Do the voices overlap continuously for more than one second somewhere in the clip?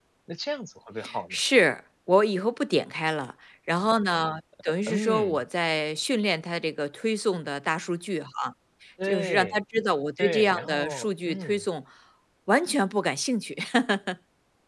Yes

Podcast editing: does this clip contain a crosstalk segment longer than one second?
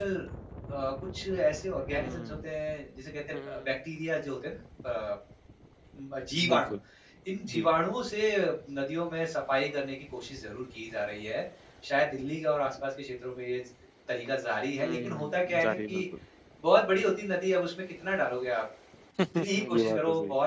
Yes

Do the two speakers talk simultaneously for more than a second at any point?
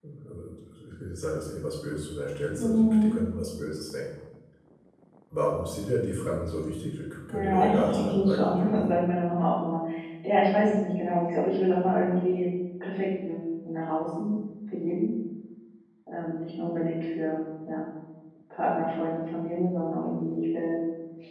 Yes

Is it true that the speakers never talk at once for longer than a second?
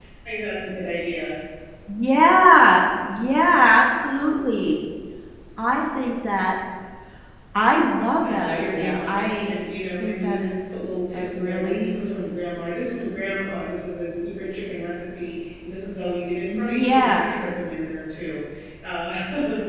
No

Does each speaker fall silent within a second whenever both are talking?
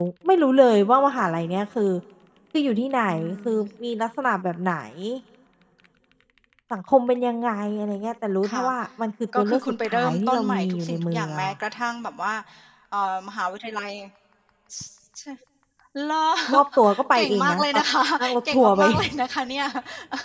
No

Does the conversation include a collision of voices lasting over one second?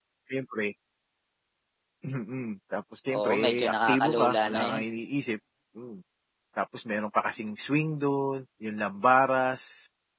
Yes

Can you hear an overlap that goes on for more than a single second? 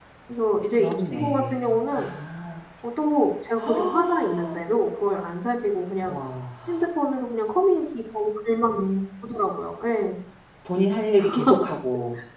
Yes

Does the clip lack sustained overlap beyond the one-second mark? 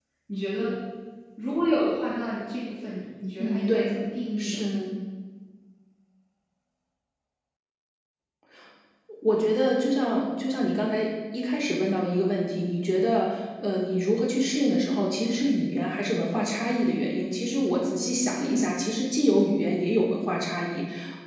Yes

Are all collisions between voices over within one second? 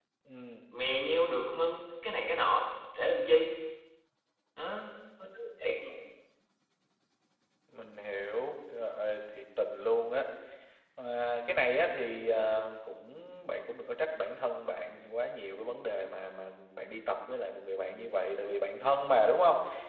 Yes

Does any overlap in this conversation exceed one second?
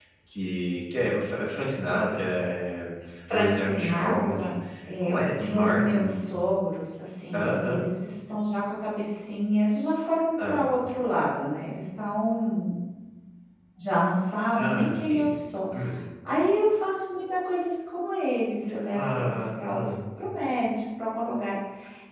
Yes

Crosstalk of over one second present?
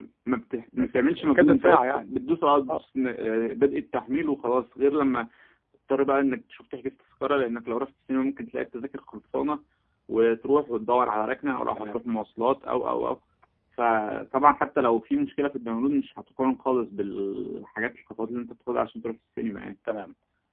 Yes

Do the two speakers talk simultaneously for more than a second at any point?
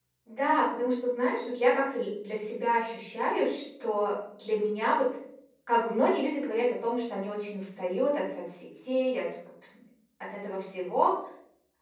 No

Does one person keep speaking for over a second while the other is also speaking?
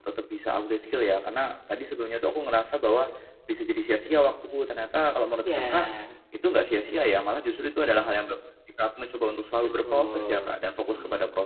Yes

